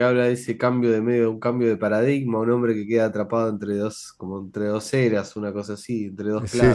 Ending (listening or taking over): taking over